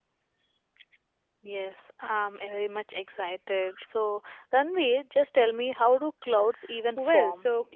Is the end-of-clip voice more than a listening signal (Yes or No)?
Yes